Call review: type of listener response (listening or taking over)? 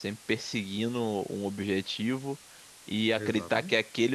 listening